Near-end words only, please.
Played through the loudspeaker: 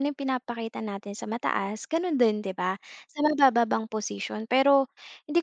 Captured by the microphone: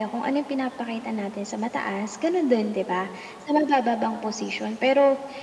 none

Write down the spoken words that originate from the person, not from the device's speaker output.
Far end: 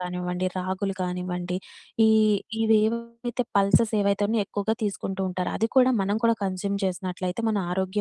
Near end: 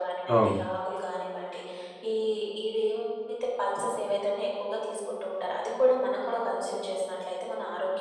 అవును.

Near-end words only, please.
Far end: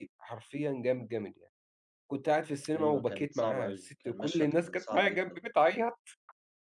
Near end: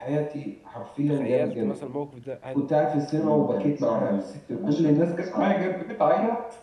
تخيّلت مثلًا الموقف ده هل

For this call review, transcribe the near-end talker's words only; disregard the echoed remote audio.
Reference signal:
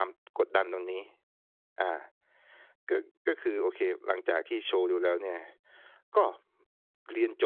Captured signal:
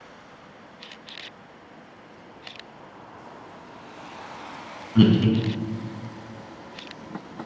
อือฮึ

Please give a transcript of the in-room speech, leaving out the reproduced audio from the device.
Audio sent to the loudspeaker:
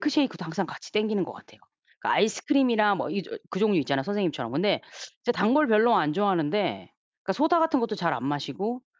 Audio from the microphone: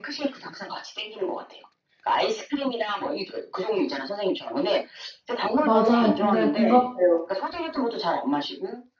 맞아요 근데 공감돼요.

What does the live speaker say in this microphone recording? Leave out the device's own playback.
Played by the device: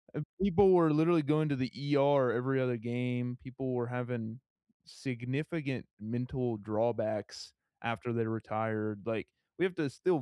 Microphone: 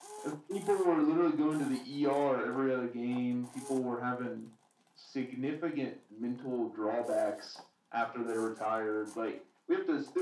none

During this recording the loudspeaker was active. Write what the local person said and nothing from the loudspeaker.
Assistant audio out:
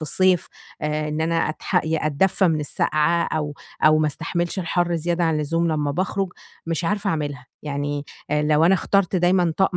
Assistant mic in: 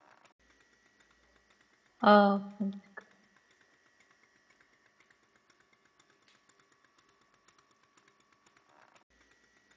آه فهمتِك.

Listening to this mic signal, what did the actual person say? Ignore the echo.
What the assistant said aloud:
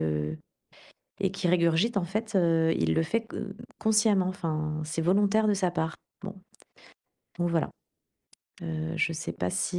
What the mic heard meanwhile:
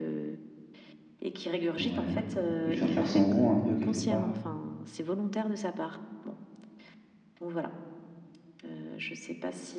Ouais, lui faire faire son rot, un peu, quelque part?

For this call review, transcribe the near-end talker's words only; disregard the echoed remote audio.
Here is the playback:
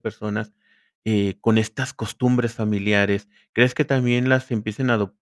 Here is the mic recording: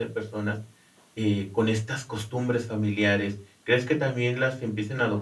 none

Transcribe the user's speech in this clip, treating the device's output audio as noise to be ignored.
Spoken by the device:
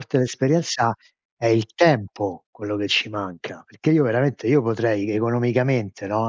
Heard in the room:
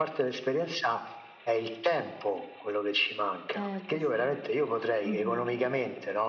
Eh lo so. Mh-mh.

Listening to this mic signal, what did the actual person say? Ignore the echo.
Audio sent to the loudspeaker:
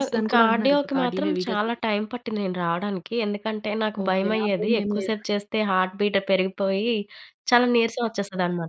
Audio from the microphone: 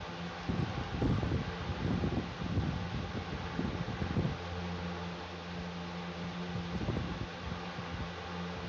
none

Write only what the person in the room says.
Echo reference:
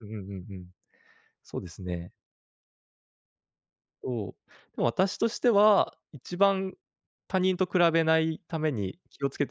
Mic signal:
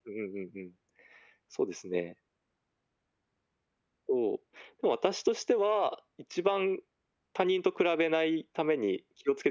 none

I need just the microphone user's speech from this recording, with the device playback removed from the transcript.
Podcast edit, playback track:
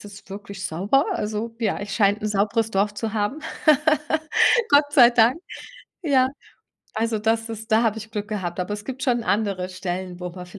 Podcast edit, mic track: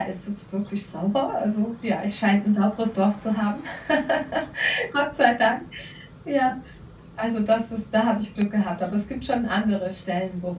none

